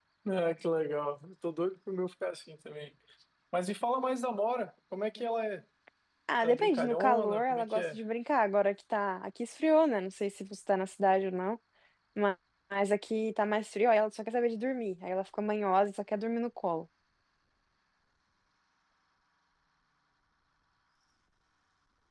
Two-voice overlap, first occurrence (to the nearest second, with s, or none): 6 s